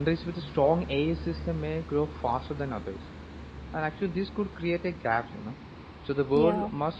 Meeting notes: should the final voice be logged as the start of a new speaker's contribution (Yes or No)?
No